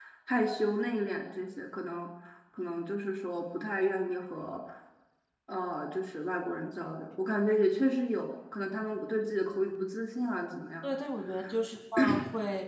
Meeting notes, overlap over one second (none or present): none